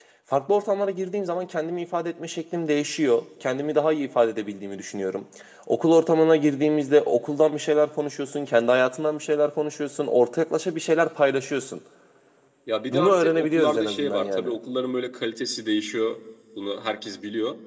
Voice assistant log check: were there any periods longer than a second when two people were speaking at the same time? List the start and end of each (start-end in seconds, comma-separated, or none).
12.9-14.5